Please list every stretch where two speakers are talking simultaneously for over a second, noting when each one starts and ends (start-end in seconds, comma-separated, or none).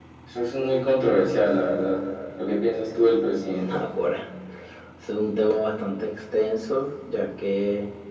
none